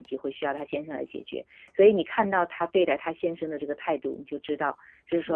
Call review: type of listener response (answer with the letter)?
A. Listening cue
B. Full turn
A